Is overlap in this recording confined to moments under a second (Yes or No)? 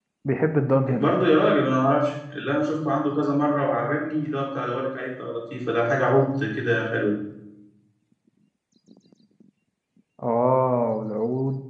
Yes